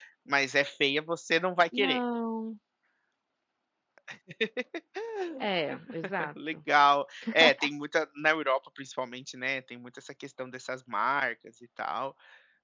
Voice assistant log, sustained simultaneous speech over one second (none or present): none